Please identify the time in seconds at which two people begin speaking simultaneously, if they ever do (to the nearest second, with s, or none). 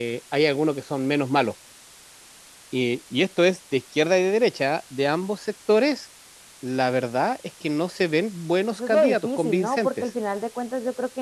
9 s